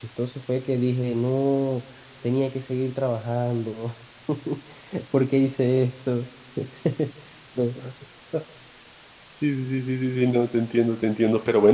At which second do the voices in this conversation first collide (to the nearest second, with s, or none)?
none